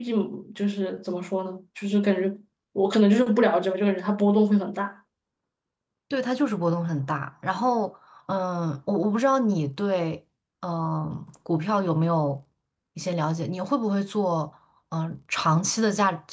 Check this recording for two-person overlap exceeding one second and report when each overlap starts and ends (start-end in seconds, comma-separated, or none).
none